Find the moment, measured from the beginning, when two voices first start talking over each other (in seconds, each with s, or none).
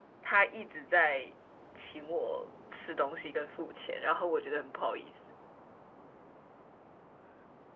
none